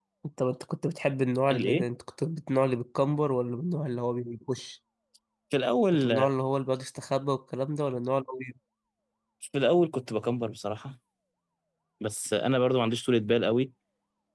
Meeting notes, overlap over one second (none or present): none